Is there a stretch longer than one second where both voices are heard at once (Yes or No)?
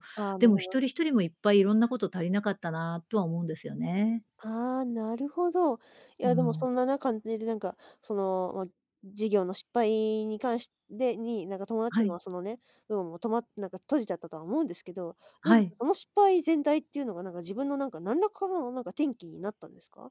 No